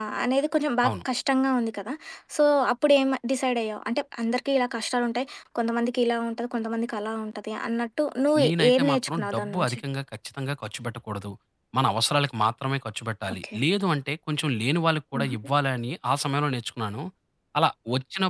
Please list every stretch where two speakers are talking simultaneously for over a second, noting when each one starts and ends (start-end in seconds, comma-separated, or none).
8.4-9.8